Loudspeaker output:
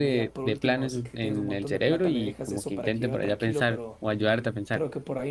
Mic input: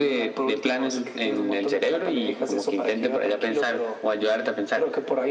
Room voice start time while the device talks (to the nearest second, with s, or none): none